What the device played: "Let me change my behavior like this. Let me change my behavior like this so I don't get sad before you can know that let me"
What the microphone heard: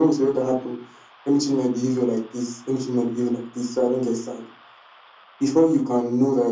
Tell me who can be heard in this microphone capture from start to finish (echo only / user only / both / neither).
echo only